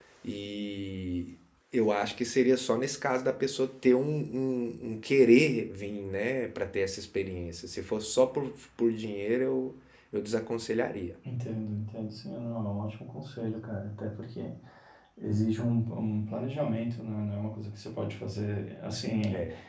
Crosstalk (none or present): none